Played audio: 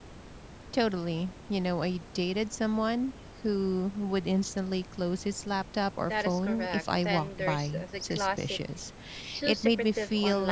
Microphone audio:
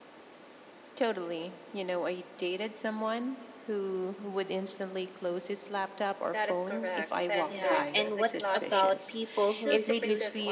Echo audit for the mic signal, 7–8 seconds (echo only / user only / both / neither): both